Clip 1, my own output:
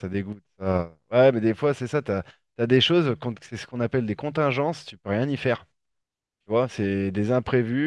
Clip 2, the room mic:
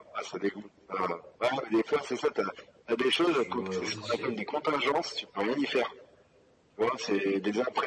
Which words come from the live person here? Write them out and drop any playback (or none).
Je joue euh, aux échecs,